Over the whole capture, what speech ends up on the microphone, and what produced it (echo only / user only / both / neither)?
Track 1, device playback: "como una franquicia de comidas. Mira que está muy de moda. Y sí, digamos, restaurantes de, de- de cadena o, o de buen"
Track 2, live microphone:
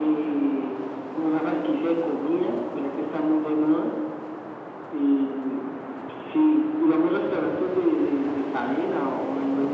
echo only